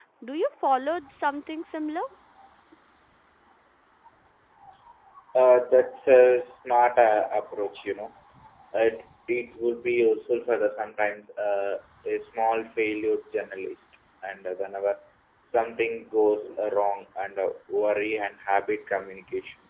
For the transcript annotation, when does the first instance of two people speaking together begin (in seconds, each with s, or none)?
none